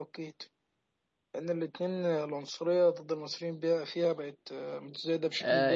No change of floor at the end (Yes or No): No